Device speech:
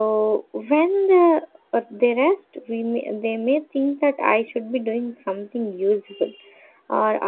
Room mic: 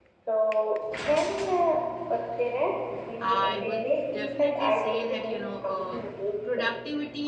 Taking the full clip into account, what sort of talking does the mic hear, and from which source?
both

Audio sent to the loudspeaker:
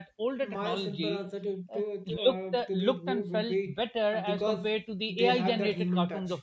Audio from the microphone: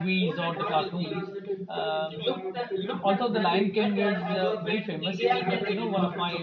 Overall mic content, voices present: both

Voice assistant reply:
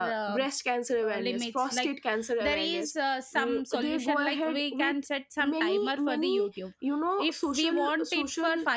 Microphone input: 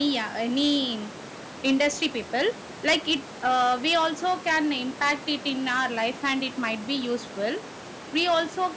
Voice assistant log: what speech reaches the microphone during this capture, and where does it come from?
user only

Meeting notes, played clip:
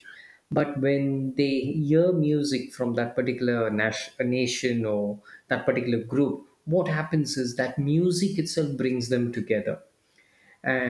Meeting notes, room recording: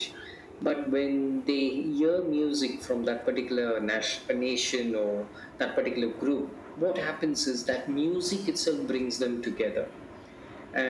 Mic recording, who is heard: echo only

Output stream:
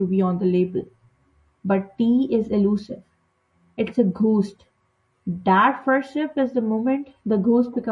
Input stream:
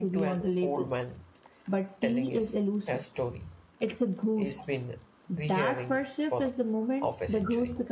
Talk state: both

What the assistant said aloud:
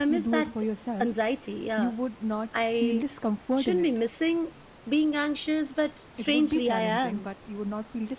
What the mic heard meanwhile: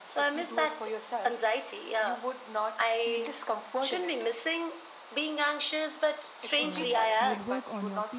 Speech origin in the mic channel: both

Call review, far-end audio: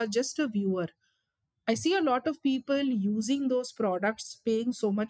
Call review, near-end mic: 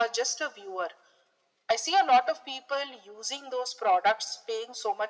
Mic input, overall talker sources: echo only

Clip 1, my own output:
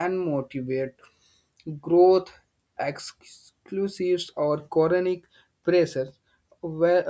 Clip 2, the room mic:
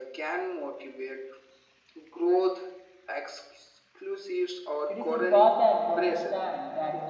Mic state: both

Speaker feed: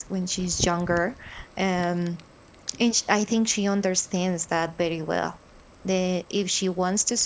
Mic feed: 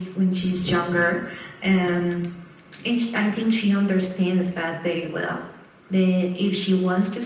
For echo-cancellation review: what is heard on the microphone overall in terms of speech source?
echo only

